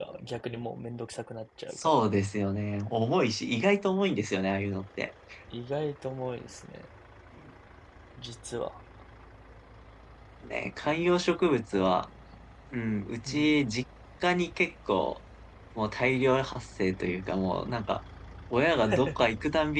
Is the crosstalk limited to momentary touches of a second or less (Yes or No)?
Yes